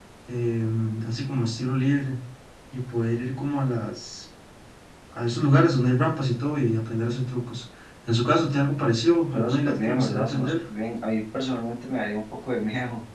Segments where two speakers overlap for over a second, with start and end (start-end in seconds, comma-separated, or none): 9.3-10.5